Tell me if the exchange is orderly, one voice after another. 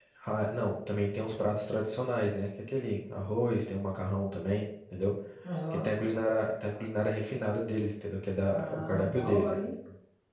No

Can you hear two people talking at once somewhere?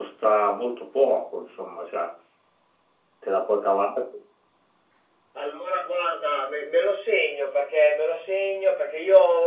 No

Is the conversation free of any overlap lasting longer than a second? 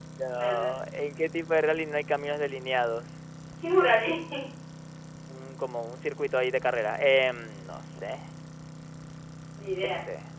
Yes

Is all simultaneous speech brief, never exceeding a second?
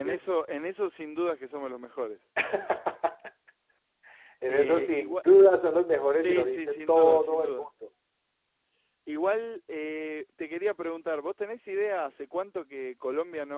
No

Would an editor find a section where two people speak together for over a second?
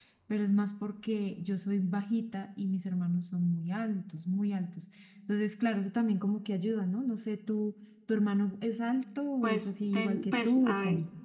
Yes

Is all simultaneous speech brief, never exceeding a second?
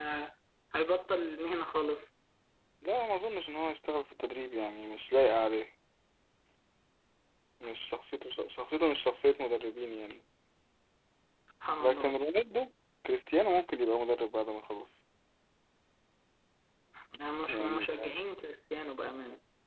Yes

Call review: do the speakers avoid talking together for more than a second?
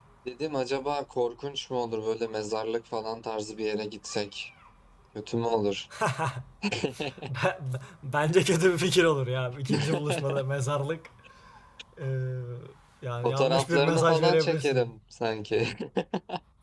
No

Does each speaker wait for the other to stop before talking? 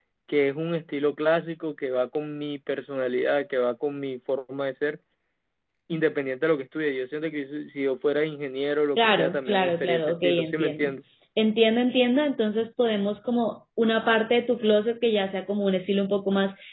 No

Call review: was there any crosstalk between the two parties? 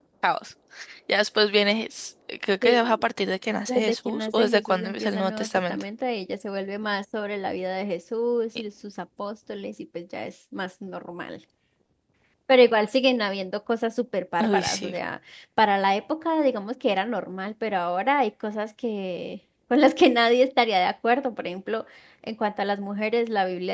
Yes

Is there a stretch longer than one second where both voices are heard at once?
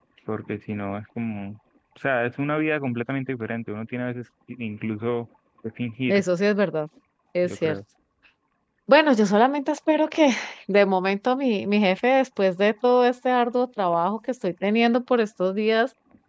No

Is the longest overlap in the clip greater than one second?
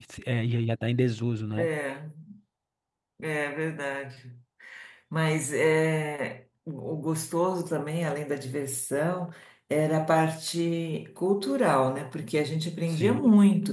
No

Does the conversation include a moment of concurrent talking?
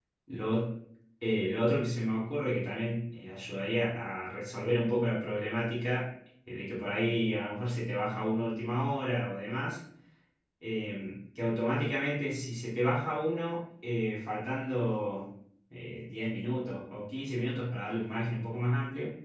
No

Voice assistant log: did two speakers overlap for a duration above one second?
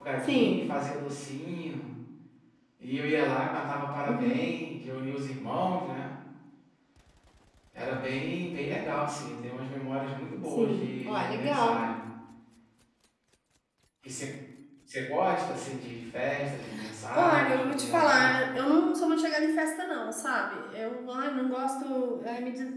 Yes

